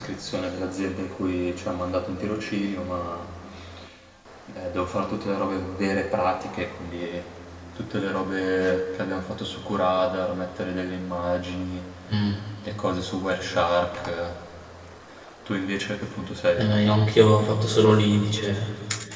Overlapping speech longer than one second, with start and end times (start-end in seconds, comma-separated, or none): none